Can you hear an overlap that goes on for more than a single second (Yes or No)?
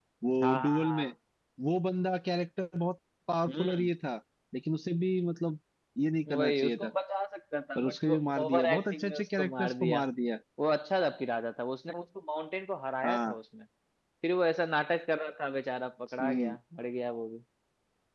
Yes